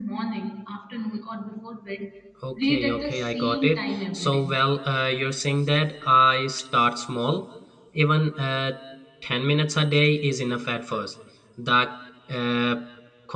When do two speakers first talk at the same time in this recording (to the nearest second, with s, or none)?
3 s